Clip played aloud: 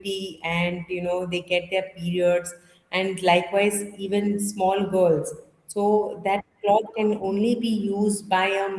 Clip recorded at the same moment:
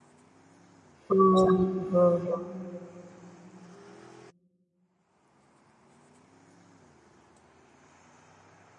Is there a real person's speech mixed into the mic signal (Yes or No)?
Yes